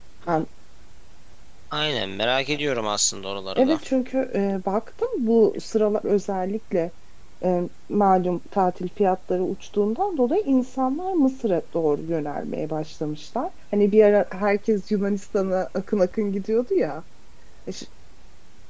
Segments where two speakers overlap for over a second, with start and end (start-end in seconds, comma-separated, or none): none